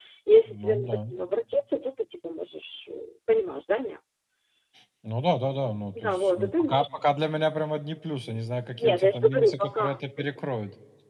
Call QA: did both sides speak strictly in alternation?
No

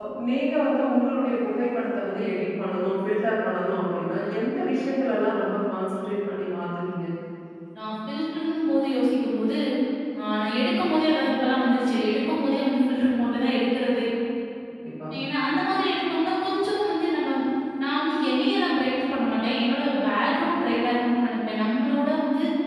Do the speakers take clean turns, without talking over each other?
Yes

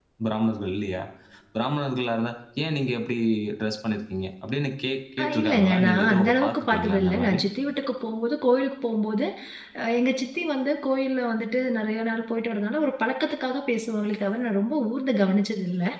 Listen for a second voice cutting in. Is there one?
Yes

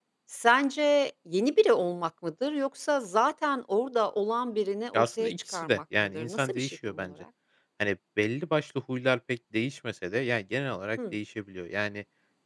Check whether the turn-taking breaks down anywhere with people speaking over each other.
Yes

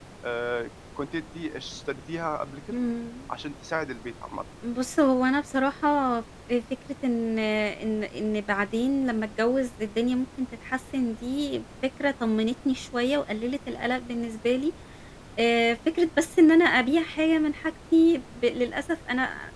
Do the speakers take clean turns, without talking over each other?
Yes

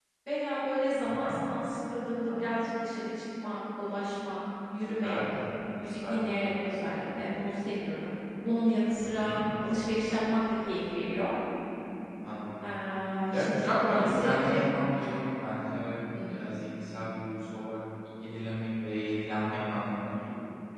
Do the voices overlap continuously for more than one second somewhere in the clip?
Yes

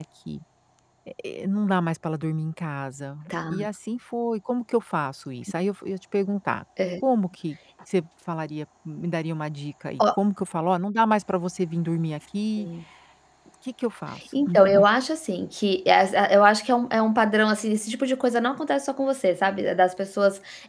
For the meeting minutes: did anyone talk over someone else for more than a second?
No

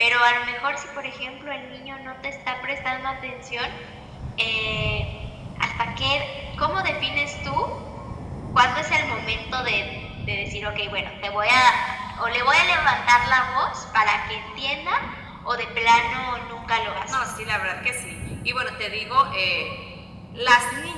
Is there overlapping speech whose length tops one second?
No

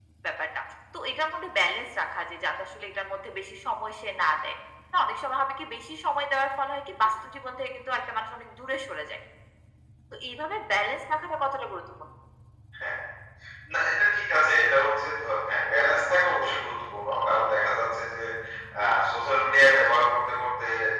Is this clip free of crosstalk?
Yes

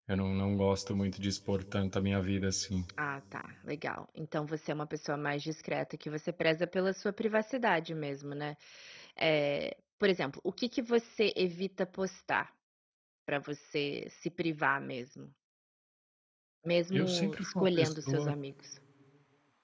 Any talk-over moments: Yes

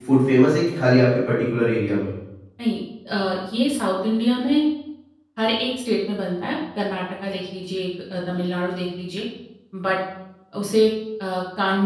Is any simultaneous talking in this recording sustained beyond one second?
No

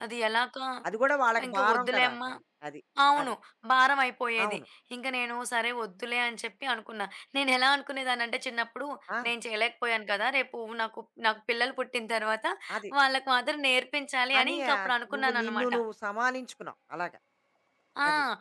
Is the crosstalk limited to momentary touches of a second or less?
No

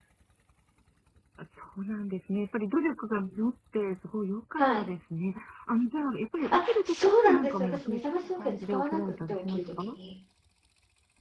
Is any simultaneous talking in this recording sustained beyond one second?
Yes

